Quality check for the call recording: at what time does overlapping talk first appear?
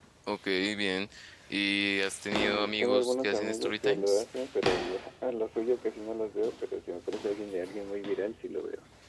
2.4 s

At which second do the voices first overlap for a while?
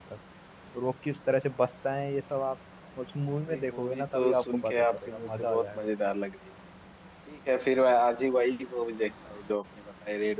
3.5 s

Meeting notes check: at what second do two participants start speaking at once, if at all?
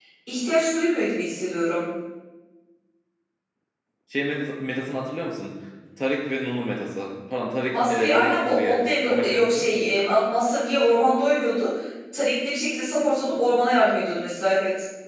7.7 s

